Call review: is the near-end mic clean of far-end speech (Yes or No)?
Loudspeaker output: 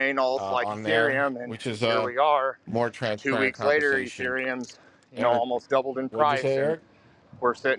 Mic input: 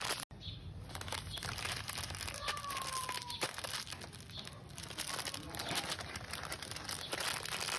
Yes